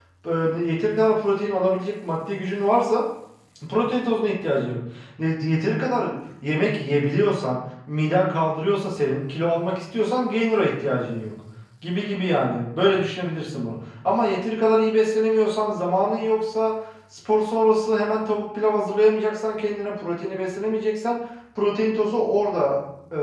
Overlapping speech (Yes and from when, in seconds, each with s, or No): No